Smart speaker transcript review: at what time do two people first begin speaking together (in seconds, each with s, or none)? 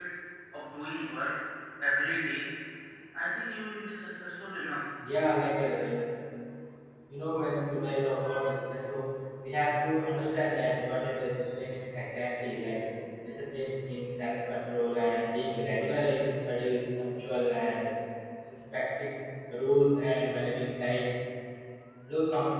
none